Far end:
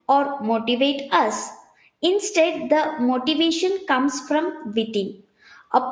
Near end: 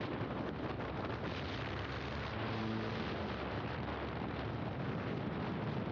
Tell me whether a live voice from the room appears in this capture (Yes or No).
No